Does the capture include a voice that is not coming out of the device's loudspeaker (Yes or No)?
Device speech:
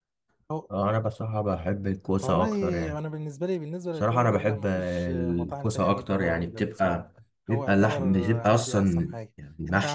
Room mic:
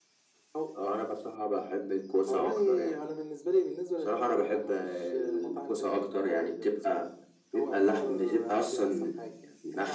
No